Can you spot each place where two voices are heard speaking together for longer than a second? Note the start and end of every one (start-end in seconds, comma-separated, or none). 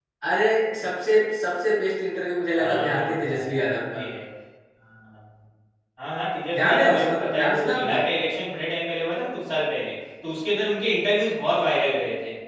2.5-4.0, 6.6-8.0